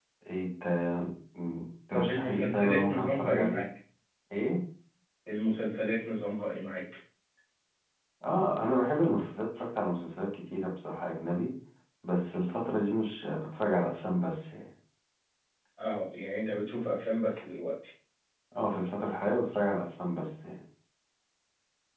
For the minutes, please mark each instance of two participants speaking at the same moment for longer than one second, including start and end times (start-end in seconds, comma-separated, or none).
1.9-3.6